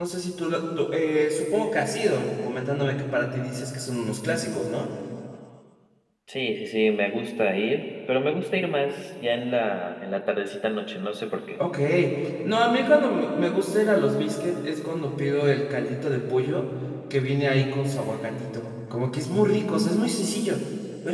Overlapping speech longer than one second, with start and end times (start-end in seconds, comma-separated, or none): none